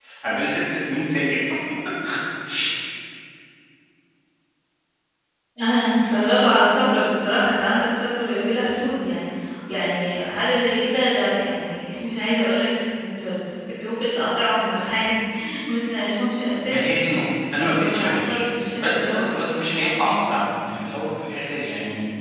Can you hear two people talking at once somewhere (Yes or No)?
Yes